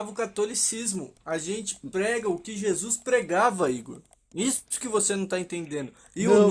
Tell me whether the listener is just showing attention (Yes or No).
Yes